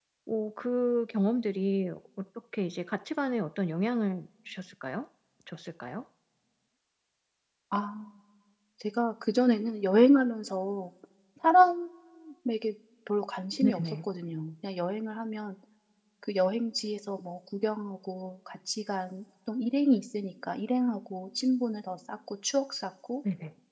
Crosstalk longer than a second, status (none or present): none